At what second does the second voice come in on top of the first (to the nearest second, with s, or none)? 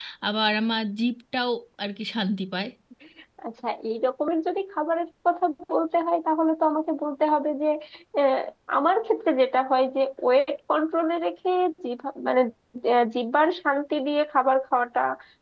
none